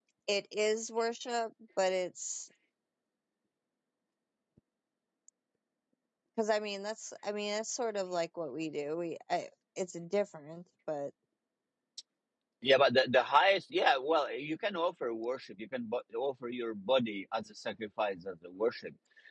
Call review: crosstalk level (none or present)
none